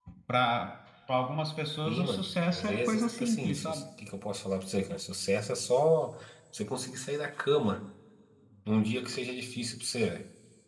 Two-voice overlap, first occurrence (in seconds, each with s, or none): 1.9 s